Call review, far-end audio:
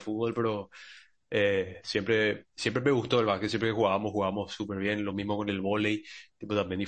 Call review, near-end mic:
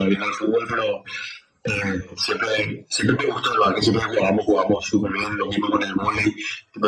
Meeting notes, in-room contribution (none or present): none